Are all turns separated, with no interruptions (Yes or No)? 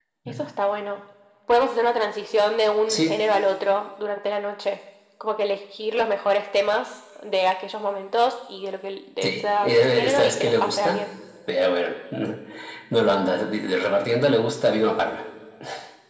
No